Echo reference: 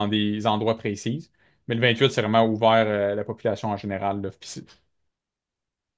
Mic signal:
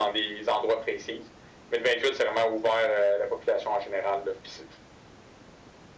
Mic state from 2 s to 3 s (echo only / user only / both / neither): echo only